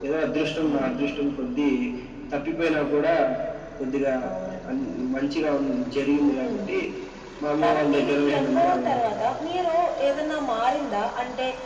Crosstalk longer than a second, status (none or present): present